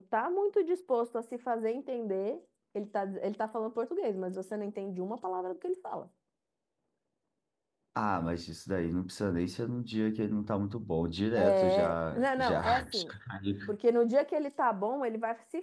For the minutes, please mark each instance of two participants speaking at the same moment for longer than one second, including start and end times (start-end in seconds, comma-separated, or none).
11.4-13.1